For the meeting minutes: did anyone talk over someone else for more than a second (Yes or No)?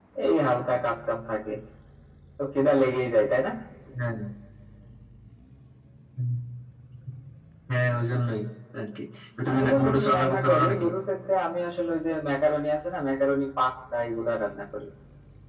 Yes